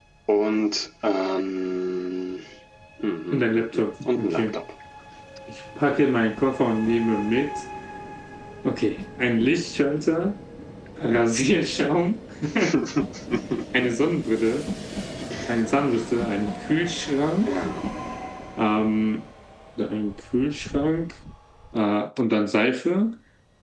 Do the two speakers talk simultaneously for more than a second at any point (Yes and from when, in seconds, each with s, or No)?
Yes, from 3.3 s